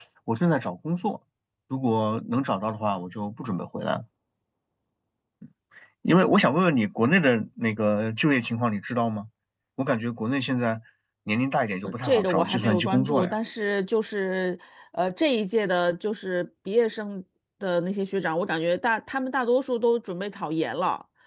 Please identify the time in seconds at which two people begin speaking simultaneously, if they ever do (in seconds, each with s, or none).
11.8 s